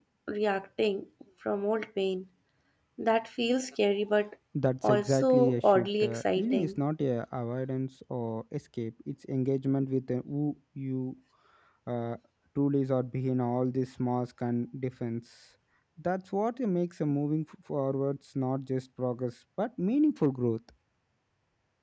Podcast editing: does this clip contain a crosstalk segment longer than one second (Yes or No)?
Yes